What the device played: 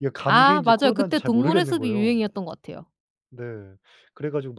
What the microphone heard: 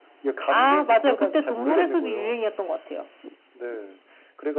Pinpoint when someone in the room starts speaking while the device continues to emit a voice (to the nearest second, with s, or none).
none